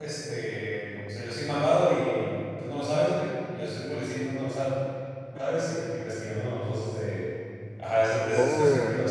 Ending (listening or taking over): listening